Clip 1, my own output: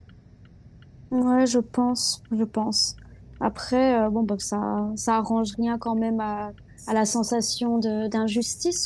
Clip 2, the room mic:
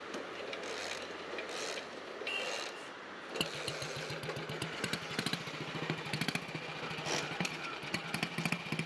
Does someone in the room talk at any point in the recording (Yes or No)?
No